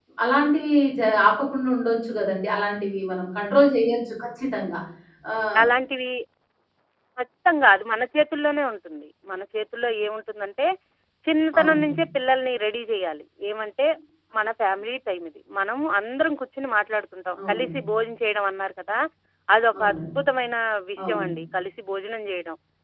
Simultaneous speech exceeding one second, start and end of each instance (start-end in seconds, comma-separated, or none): none